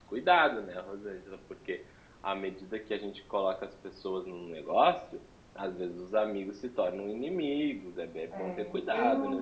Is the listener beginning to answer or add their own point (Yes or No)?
Yes